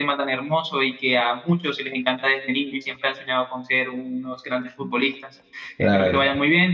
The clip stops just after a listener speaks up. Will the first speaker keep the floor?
Yes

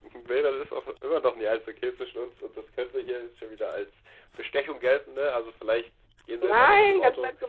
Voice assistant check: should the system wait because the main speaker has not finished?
No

